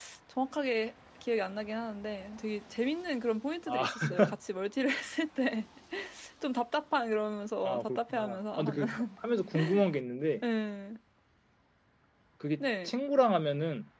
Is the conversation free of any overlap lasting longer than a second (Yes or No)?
No